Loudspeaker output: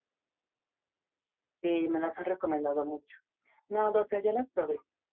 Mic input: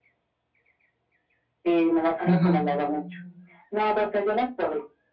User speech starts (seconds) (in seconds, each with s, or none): 2.2 s